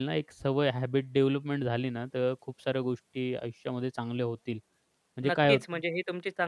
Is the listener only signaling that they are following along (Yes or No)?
No